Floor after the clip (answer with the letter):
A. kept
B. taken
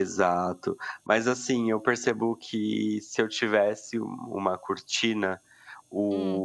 A